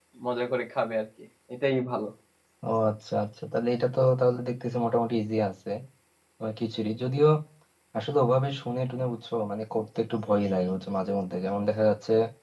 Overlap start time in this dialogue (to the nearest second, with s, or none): none